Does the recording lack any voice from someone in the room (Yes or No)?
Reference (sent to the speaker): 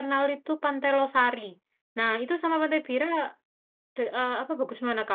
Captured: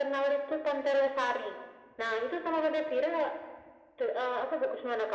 Yes